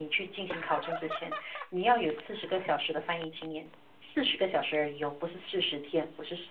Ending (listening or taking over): taking over